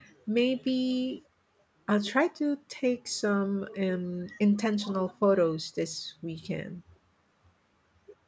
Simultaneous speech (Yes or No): No